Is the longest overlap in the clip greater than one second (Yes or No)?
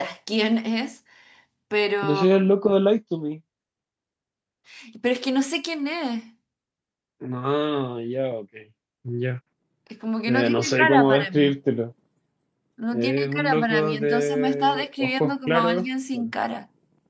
Yes